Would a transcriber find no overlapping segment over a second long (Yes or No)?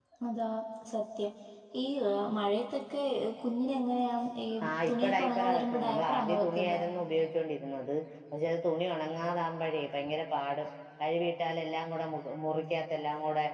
No